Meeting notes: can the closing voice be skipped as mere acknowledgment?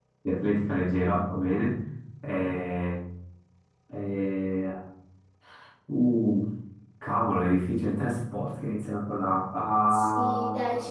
No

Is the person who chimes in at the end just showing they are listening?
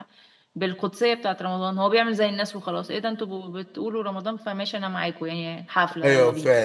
No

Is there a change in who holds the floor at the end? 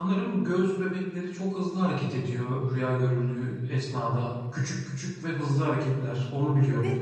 Yes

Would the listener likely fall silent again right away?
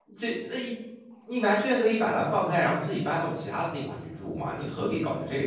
No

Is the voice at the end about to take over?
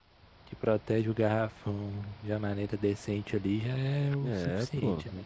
Yes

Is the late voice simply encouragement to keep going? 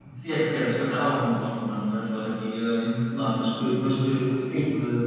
Yes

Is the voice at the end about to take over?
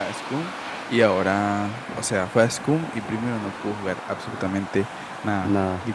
No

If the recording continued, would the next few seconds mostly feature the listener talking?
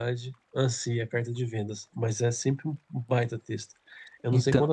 No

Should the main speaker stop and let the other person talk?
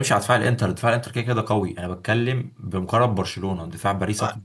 Yes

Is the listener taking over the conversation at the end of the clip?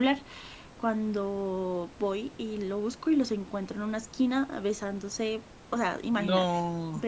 No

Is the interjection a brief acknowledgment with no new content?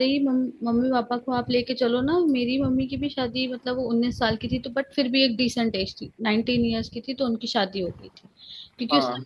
Yes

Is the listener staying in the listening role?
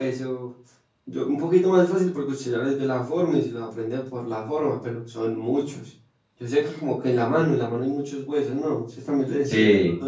No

